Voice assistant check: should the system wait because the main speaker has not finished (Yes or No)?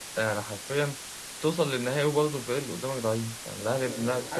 No